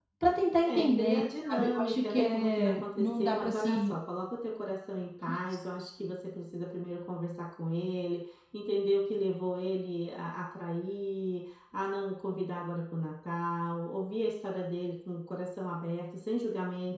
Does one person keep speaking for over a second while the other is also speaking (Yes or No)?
Yes